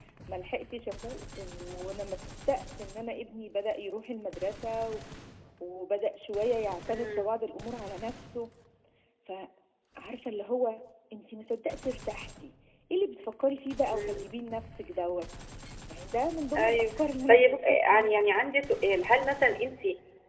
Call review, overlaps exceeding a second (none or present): present